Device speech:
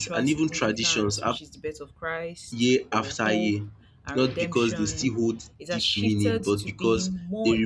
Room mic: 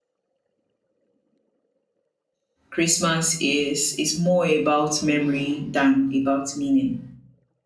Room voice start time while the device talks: 2.7 s

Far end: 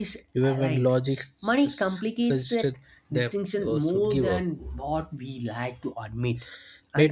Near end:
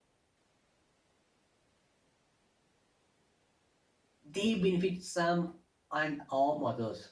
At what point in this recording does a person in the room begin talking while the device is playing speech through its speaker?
4.3 s

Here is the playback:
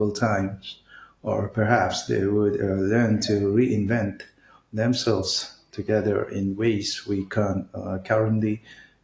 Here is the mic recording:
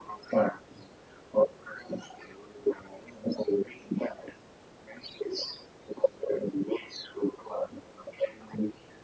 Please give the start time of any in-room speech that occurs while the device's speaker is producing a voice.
none

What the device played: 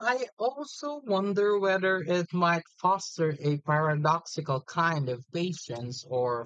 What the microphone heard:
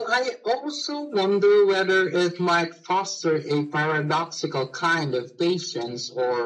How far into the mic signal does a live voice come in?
none

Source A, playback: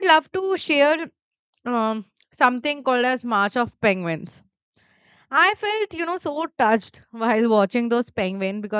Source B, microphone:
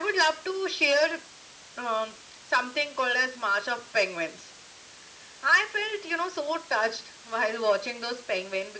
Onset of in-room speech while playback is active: none

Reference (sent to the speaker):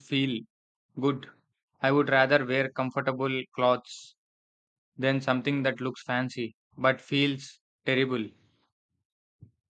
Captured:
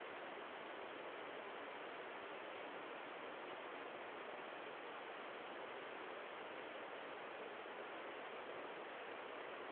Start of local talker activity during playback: none

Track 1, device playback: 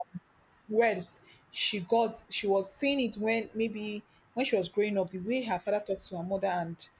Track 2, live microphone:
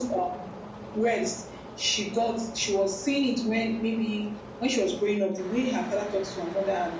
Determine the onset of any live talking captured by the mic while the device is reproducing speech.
none

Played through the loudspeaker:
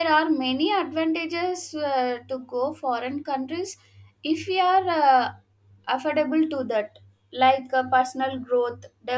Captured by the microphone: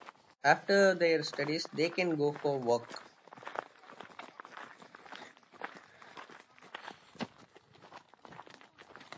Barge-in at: 0.5 s

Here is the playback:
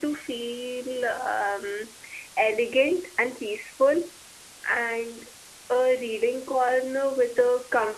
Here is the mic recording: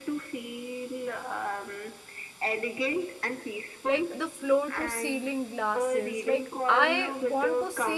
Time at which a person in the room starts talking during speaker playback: 3.8 s

